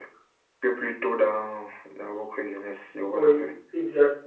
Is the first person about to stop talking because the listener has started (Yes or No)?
Yes